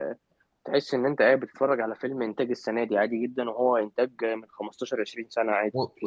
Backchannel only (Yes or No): No